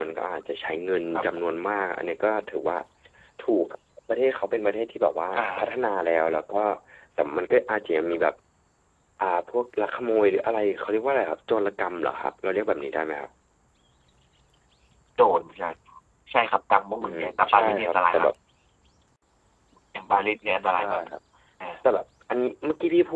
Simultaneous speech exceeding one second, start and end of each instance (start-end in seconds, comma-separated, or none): 17.0-18.3